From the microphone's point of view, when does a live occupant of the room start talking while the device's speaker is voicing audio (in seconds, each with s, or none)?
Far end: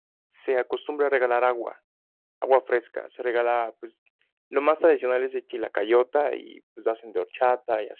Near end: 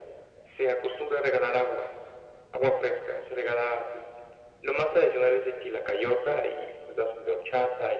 none